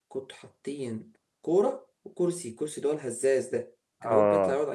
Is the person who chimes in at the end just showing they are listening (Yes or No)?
Yes